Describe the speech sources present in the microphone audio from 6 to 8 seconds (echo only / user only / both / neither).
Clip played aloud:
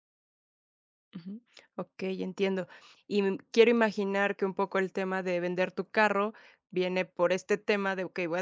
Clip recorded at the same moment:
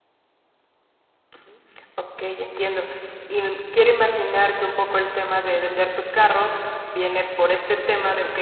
echo only